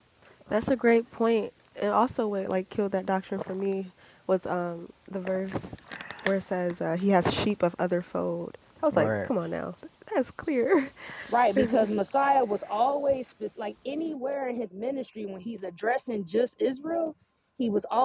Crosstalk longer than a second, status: none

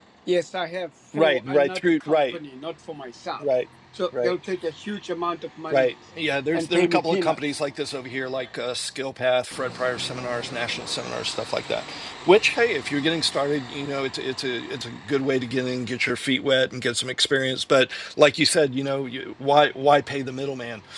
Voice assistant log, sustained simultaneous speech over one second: present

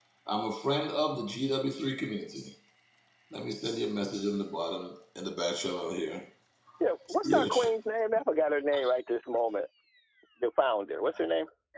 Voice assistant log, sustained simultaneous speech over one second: none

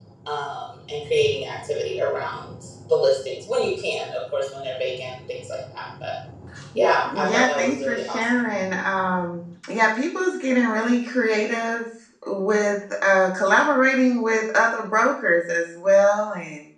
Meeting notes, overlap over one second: present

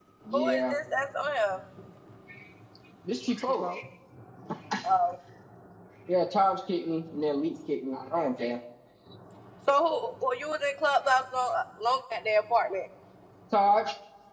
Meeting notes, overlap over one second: none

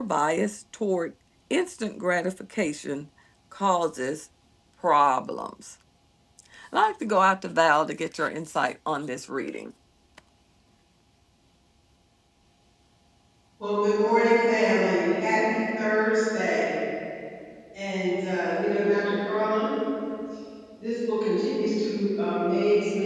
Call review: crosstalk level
none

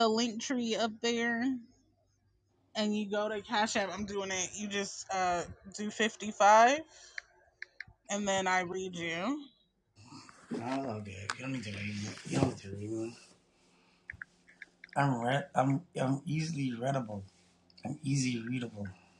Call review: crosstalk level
none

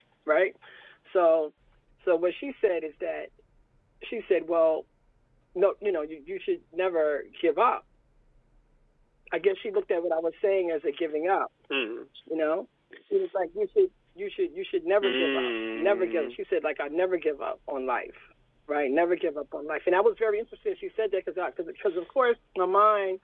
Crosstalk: present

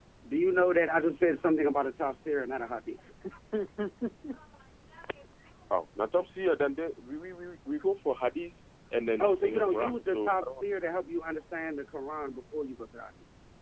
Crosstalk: present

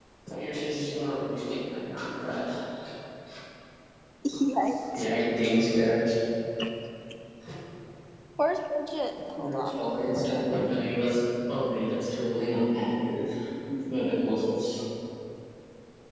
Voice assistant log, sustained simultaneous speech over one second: present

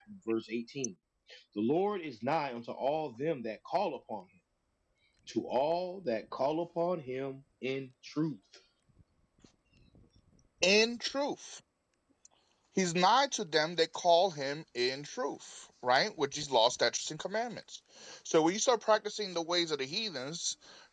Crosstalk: none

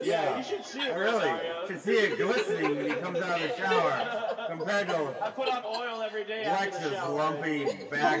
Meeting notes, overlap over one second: present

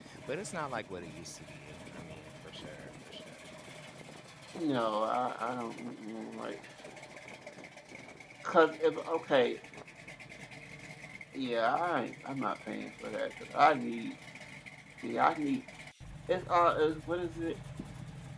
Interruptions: none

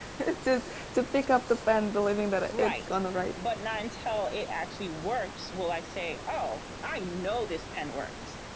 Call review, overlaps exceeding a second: none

